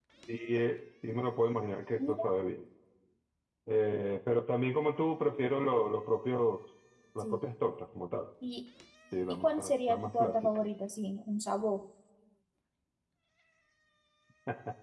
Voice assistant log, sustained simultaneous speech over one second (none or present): present